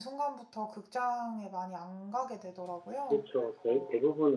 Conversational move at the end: taking over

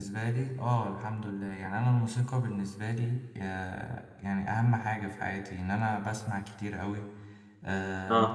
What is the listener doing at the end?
listening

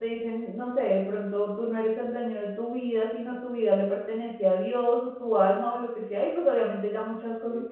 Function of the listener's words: taking over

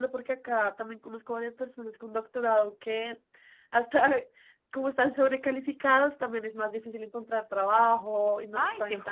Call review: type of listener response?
taking over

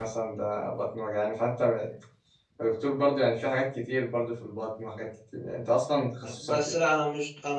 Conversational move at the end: taking over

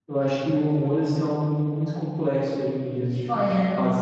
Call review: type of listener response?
taking over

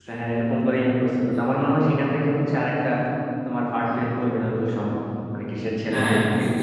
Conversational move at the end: taking over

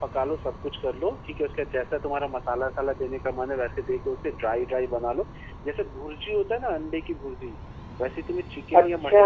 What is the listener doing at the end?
listening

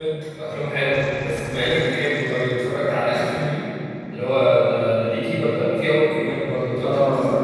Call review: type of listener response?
taking over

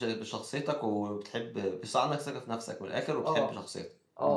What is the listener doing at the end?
taking over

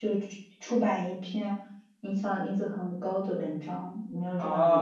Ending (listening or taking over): taking over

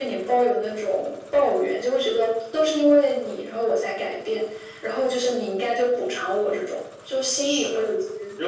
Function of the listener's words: taking over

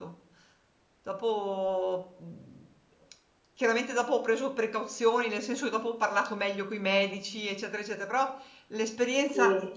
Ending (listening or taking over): listening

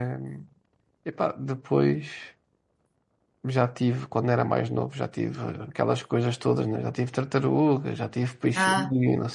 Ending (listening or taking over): listening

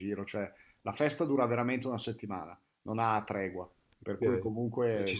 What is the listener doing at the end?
taking over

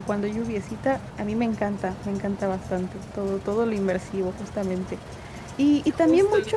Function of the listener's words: listening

